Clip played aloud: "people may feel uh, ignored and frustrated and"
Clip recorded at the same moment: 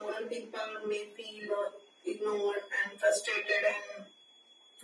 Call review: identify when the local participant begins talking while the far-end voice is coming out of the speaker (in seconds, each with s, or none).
none